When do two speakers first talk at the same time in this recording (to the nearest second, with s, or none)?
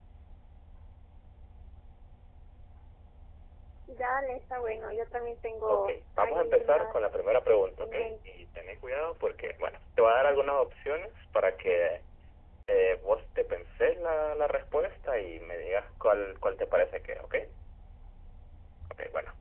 6 s